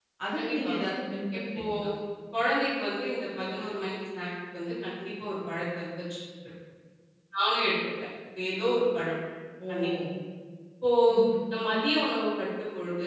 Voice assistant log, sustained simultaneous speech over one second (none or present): none